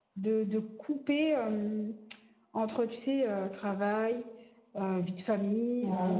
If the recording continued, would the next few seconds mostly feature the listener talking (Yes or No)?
No